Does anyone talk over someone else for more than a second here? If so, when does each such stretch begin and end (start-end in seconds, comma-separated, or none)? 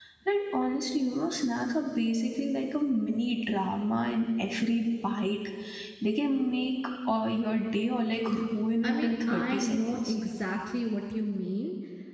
8.8-10.1